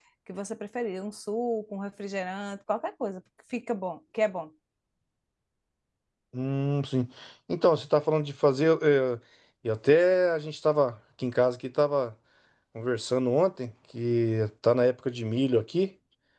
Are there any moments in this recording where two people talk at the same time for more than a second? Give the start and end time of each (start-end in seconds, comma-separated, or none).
none